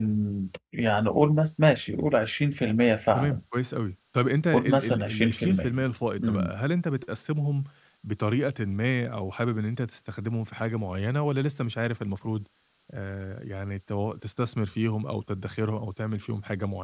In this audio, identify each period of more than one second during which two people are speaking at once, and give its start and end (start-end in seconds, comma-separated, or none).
4.5-5.8